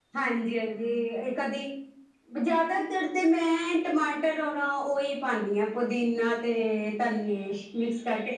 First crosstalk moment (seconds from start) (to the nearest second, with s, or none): none